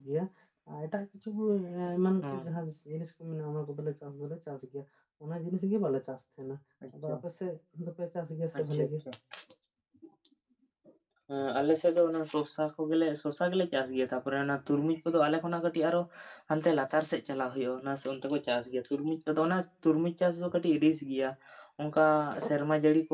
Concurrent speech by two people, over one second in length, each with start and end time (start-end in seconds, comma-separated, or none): none